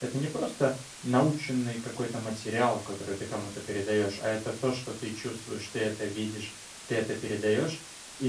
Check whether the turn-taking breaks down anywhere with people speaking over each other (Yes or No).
No